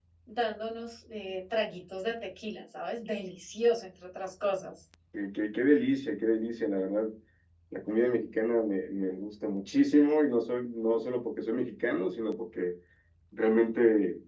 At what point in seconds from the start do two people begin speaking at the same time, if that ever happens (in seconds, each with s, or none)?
none